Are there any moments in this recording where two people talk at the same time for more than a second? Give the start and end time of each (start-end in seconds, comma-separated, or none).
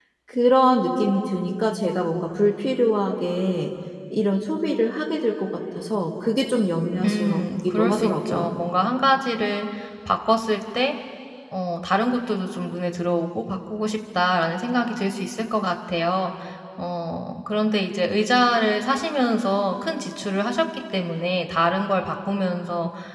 7.0-8.5